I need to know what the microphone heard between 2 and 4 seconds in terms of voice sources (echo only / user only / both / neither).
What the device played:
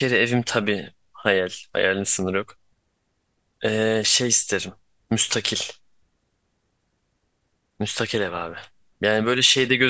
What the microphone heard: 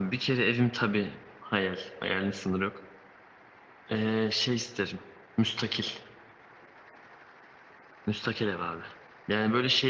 echo only